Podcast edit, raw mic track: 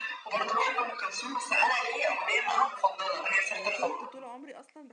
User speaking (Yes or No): Yes